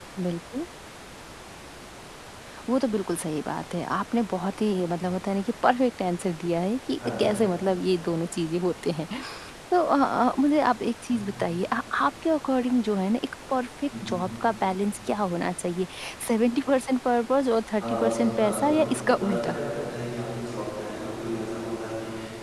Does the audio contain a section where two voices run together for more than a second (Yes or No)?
Yes